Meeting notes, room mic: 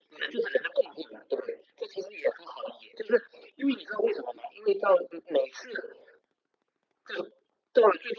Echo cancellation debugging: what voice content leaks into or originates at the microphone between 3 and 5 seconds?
echo only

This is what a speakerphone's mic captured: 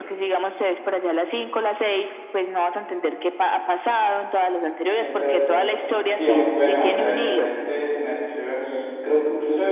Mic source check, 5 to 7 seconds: both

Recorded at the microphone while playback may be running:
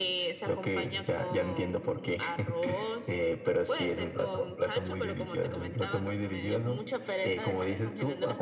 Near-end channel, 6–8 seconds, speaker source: echo only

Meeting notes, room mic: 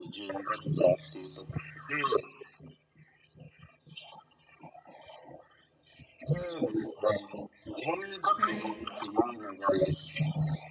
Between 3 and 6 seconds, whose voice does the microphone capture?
neither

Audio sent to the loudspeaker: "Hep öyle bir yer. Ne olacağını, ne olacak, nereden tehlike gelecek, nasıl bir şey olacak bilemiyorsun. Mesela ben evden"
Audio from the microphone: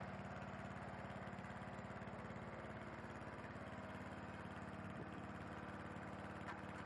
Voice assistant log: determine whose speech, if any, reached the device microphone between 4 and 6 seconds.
neither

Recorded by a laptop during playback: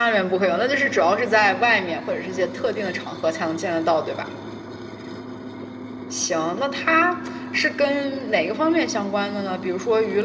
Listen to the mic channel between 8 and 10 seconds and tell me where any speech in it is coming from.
echo only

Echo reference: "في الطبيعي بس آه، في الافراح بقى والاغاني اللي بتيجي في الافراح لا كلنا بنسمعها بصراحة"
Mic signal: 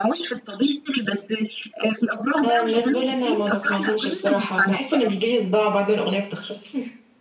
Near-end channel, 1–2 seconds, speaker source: echo only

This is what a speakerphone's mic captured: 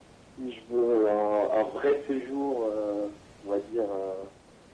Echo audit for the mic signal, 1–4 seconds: echo only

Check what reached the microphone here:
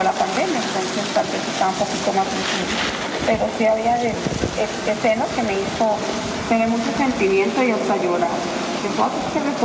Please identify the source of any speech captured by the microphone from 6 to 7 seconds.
echo only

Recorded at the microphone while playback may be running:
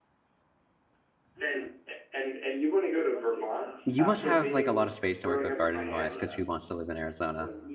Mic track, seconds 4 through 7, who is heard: both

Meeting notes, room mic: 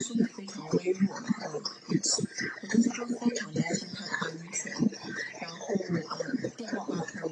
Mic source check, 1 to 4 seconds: echo only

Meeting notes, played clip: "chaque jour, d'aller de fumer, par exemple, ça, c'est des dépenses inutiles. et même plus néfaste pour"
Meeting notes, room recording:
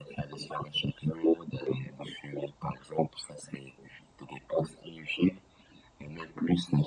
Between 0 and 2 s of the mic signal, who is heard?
echo only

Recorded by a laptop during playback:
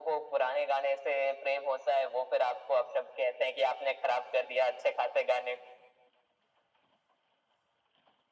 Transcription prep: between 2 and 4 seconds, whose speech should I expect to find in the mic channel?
echo only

